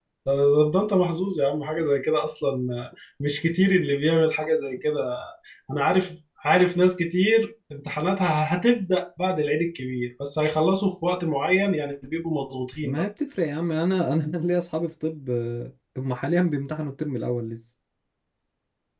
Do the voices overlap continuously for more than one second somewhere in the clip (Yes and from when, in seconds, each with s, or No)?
No